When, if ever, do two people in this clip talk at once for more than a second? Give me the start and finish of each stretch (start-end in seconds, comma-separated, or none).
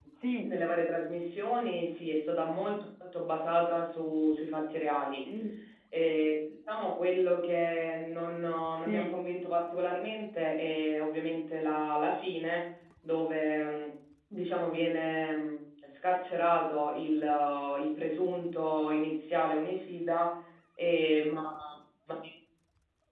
none